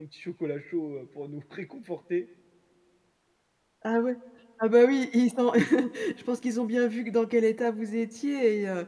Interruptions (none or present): none